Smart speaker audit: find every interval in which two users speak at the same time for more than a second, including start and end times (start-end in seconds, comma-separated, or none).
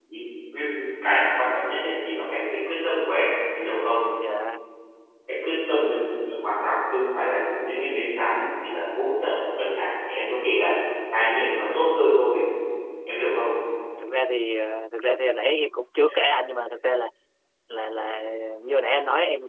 none